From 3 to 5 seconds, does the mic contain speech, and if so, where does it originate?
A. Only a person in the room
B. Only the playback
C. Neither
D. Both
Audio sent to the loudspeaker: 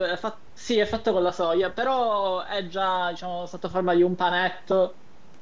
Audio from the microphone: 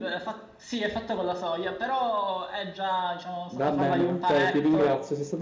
D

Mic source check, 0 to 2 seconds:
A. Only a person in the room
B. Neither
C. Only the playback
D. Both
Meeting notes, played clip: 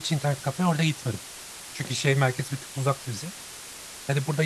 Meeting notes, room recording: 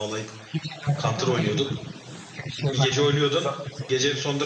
D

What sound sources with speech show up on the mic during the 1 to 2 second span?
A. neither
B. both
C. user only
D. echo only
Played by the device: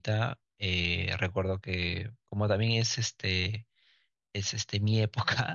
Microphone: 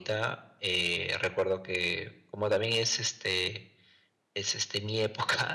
D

